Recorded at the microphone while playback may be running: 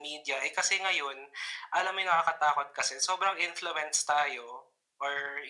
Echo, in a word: present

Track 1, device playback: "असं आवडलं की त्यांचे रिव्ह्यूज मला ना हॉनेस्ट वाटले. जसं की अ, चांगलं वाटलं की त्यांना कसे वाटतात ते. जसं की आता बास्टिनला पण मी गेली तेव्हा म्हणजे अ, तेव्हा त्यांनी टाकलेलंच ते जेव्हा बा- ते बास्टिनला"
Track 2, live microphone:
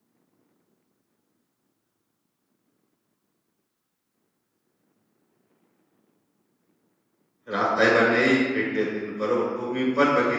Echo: none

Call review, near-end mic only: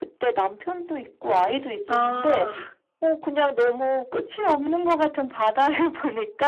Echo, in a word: present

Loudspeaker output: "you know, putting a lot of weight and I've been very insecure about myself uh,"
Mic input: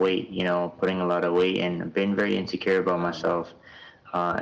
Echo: present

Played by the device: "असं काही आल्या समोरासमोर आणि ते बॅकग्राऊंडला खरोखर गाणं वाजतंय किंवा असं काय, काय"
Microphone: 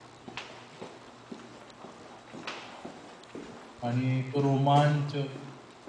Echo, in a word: none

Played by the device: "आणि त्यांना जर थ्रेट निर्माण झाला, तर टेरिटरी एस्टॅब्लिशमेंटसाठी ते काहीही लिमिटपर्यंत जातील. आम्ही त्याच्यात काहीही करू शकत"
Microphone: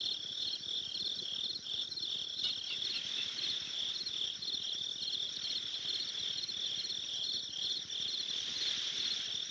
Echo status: none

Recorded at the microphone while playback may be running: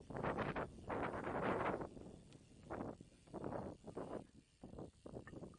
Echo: none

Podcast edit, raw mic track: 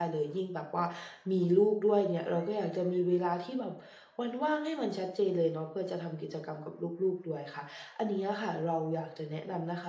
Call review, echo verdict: none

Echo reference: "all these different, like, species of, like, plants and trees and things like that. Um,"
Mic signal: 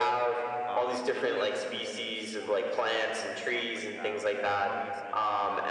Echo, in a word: present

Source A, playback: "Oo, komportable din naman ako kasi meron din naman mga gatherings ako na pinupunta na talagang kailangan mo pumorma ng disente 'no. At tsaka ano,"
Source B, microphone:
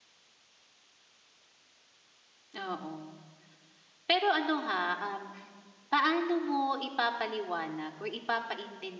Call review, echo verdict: none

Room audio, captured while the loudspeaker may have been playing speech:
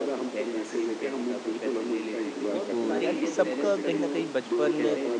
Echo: present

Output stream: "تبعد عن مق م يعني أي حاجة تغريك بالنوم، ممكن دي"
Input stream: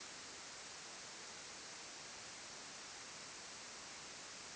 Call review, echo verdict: none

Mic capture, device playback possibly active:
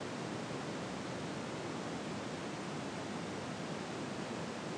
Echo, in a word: none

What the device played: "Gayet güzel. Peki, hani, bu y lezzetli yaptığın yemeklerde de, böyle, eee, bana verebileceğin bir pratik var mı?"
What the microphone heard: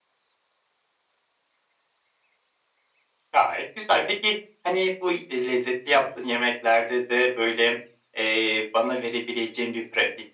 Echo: present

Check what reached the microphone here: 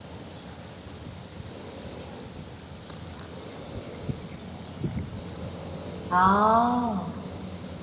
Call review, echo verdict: none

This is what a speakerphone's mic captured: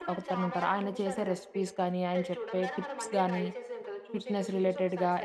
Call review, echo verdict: present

